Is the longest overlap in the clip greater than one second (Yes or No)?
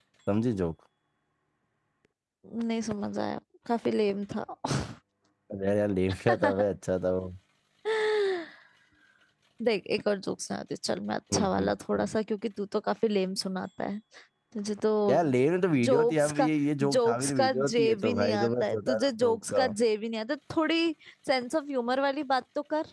Yes